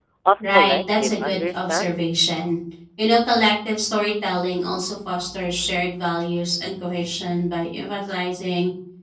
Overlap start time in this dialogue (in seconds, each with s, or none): 0.5 s